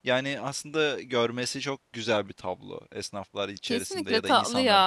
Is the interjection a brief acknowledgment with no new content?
No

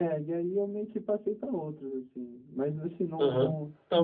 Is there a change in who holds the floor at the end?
Yes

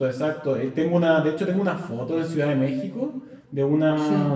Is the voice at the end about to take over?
No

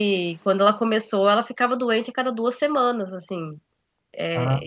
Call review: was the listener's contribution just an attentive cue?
Yes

